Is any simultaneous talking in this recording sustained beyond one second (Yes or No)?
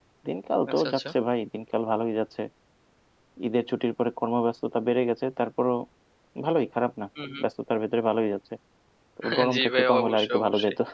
Yes